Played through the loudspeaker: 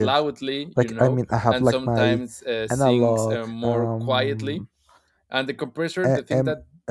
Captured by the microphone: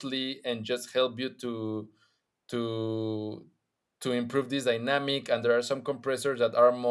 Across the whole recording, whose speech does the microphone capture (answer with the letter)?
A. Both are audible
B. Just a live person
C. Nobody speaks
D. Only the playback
B